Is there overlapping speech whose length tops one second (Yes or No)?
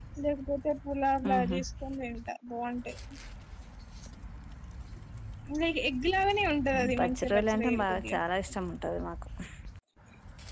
Yes